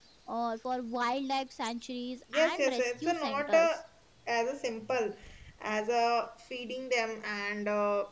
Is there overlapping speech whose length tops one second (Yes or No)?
Yes